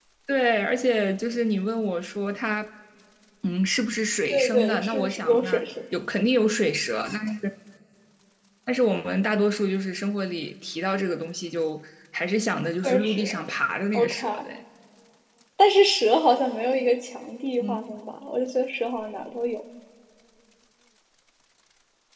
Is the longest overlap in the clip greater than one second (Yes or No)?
Yes